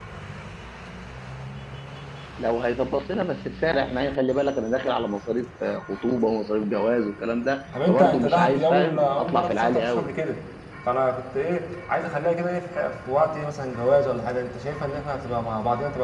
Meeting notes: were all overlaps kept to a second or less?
No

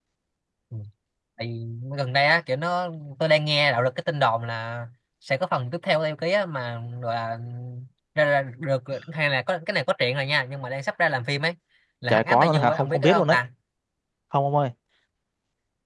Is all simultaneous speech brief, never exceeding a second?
No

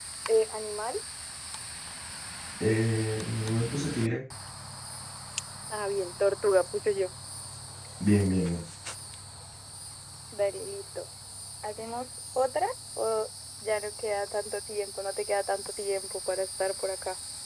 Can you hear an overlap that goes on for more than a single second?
No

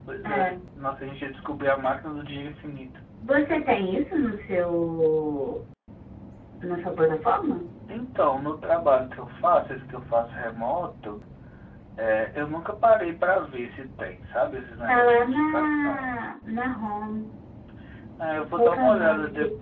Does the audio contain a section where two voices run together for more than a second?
Yes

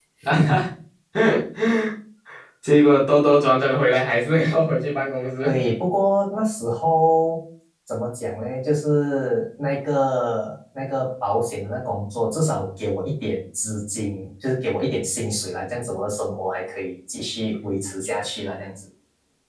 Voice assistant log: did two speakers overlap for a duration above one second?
No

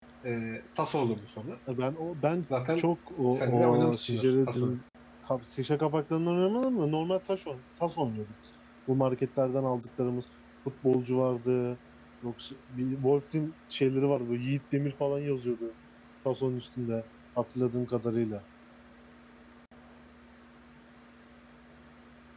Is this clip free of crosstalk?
No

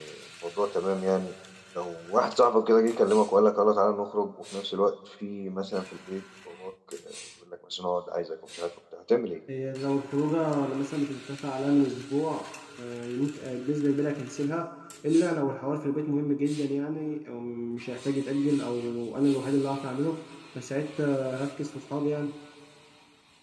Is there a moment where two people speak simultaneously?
No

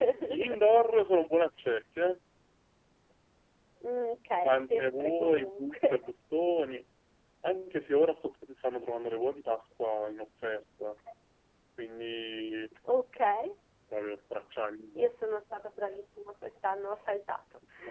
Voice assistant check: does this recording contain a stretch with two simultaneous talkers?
Yes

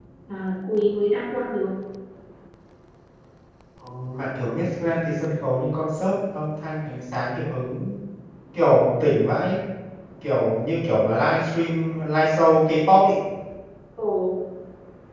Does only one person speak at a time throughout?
Yes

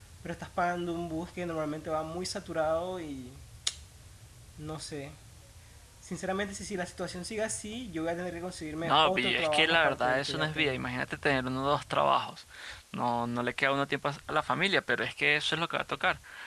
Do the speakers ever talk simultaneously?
Yes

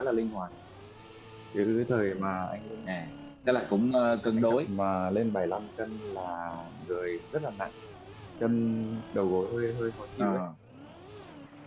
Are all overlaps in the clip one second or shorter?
Yes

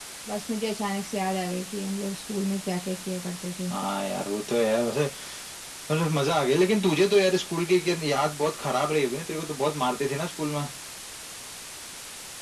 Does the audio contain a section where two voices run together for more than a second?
No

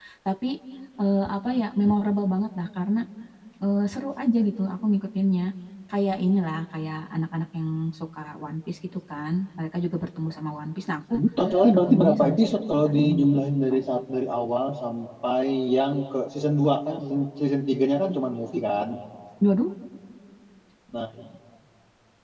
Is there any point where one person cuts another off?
Yes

